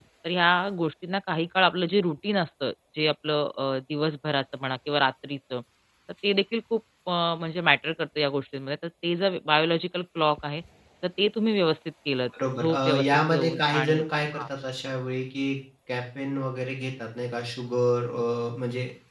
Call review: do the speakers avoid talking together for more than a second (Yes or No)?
No